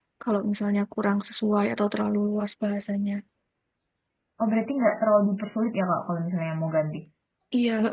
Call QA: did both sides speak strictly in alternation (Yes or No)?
Yes